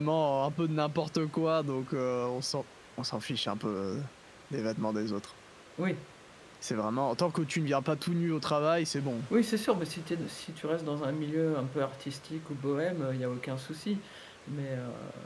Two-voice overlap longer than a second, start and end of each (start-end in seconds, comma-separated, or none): none